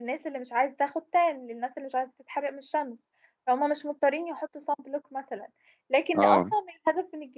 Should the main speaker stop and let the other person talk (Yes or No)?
No